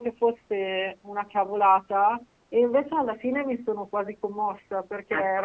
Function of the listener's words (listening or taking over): listening